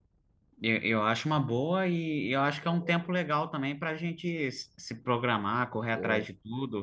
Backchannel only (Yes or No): Yes